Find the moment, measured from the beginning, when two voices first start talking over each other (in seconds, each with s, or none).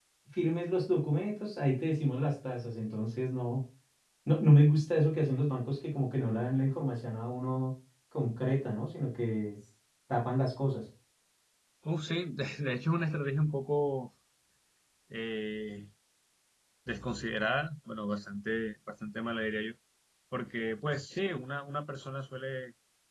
none